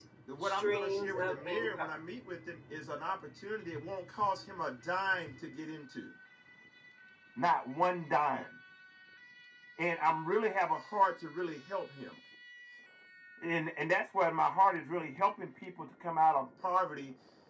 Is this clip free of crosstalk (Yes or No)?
No